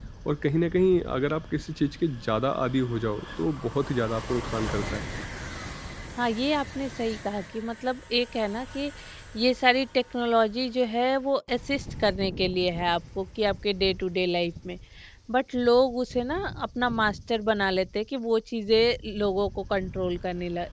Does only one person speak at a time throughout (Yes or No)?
Yes